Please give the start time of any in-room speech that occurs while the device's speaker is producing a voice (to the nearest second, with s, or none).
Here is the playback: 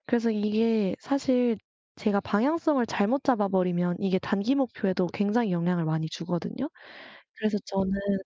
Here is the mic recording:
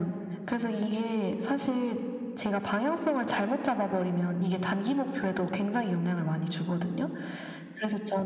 none